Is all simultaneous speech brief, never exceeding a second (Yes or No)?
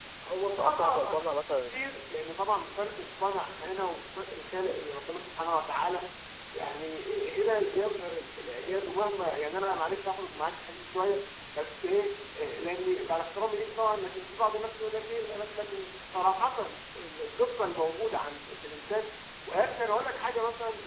No